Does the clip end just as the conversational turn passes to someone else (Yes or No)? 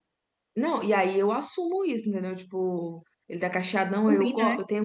No